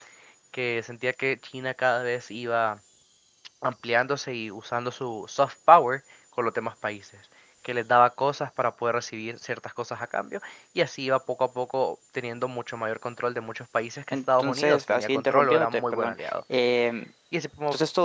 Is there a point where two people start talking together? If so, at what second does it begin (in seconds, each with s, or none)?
14.1 s